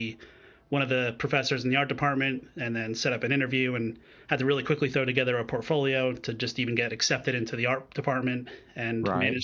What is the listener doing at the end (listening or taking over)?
listening